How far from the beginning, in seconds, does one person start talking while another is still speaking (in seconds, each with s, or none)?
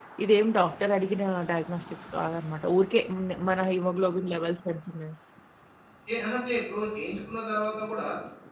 none